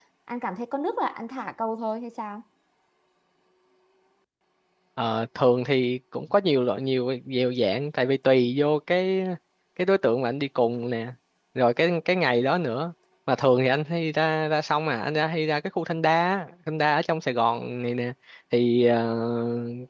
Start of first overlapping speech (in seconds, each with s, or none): none